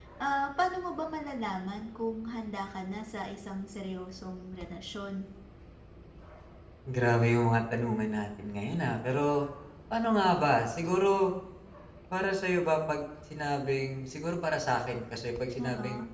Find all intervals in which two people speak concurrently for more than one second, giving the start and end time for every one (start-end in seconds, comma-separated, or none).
none